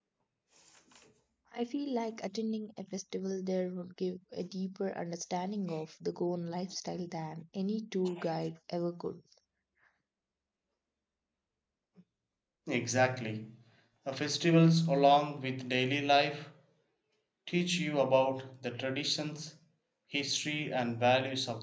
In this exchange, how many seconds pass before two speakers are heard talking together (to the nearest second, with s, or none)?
none